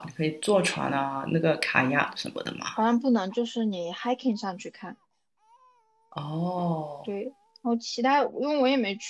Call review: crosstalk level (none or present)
none